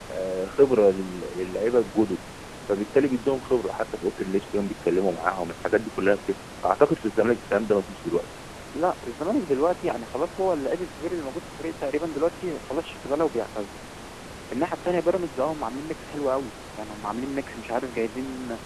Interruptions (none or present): none